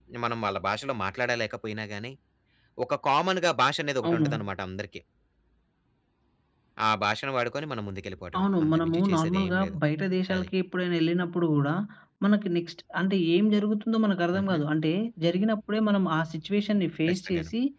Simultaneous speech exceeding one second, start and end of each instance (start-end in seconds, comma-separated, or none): 8.4-9.8